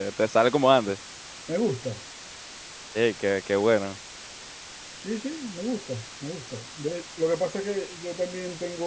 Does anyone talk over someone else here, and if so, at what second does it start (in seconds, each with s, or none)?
none